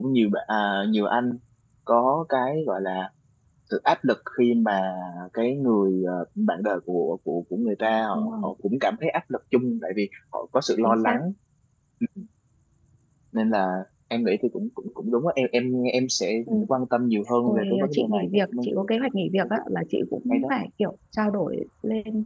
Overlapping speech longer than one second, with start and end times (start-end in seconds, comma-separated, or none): 17.5-18.8